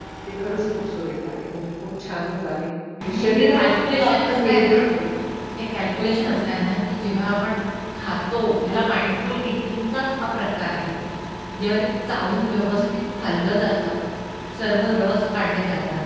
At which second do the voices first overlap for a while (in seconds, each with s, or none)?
3.0 s